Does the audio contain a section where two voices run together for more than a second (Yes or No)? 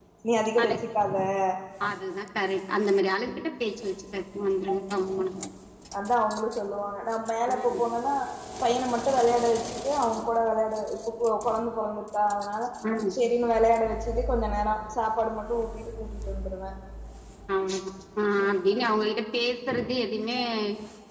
No